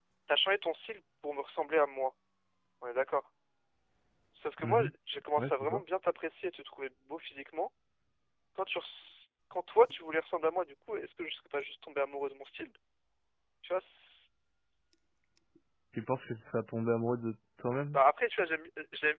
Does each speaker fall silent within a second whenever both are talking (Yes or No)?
Yes